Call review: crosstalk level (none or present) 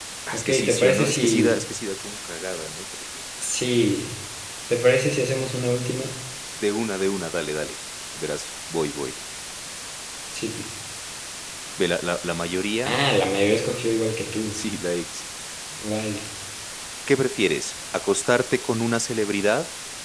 present